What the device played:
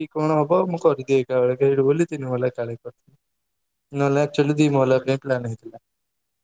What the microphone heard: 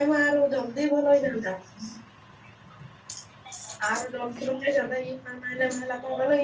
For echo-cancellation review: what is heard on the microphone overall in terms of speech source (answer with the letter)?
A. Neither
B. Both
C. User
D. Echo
C